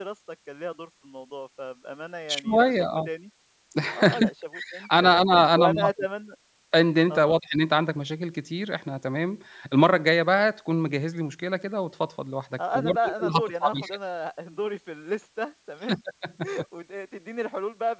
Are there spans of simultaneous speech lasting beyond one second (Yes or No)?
Yes